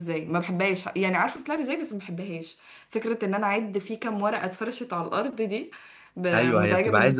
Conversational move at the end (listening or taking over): taking over